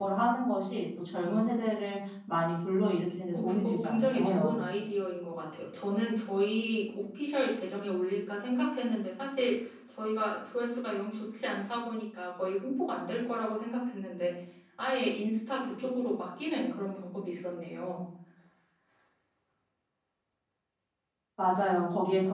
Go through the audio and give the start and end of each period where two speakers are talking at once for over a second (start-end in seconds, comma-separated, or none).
3.3-4.6